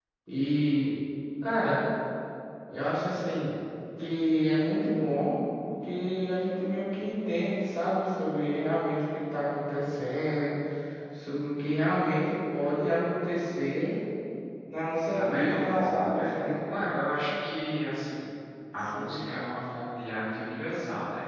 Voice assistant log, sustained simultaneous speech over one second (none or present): present